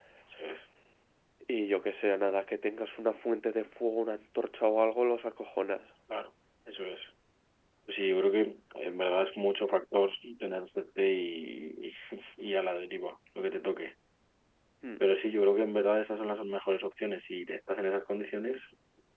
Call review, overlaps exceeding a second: none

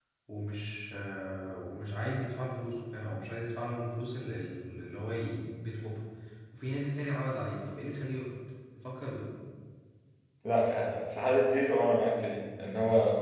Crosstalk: none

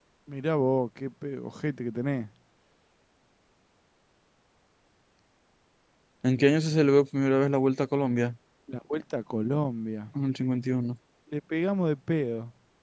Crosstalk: none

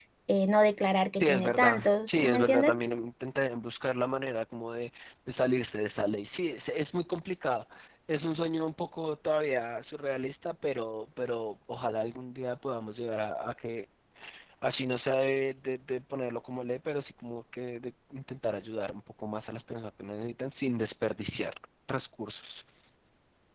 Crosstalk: present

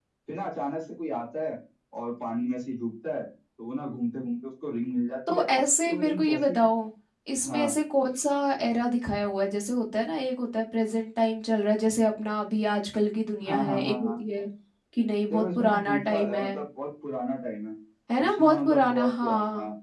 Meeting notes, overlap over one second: present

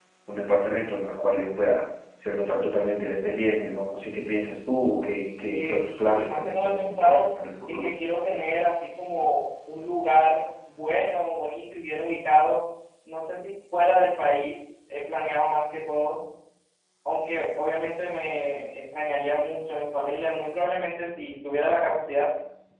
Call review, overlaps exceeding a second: present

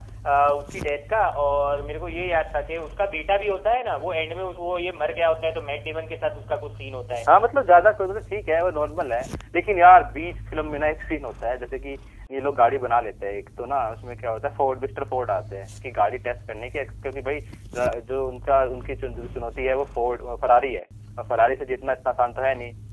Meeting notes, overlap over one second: none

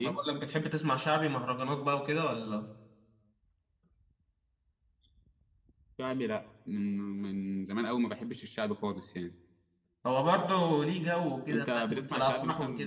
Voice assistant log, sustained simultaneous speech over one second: present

